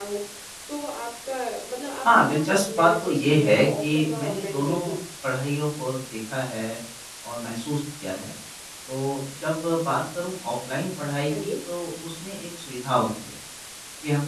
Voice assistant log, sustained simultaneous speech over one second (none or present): present